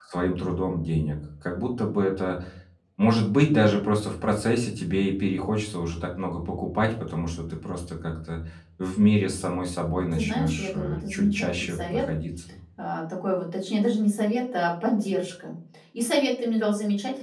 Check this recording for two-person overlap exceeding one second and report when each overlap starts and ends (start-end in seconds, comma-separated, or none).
10.1-12.0